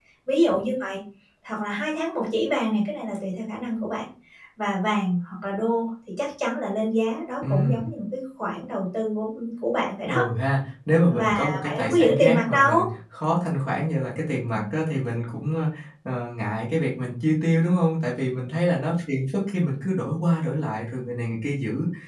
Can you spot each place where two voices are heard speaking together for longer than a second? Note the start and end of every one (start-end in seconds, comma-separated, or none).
11.1-12.7